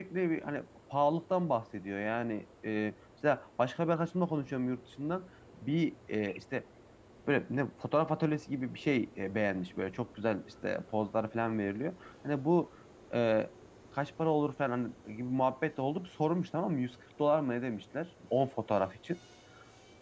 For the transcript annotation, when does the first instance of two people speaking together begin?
none

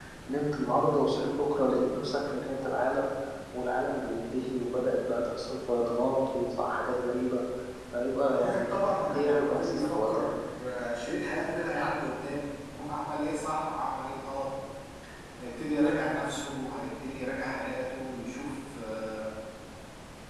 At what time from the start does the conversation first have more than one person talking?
8.3 s

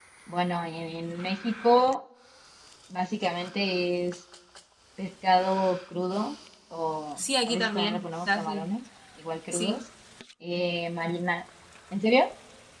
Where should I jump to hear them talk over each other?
7.2 s

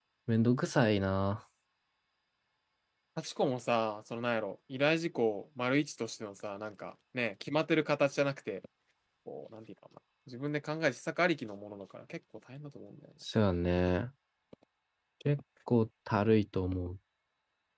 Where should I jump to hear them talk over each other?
none

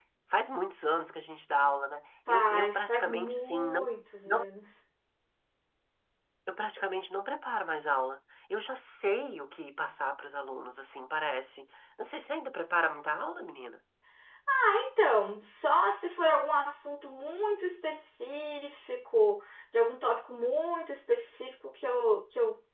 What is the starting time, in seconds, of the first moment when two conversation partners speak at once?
2.3 s

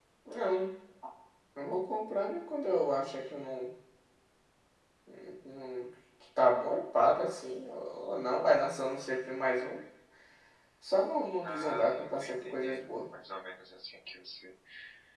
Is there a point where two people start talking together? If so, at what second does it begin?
11.4 s

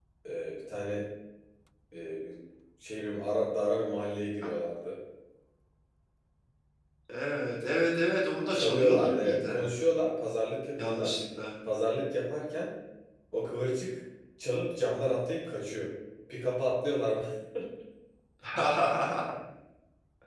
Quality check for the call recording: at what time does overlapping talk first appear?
8.5 s

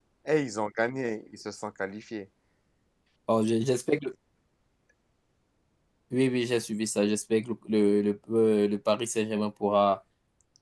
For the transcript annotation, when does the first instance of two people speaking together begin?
none

